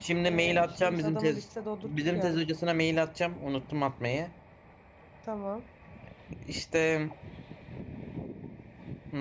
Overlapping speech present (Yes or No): Yes